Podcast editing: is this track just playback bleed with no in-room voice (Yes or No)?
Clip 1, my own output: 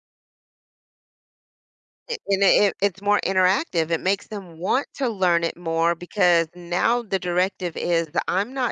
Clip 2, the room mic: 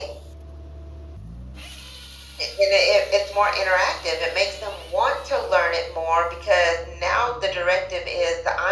Yes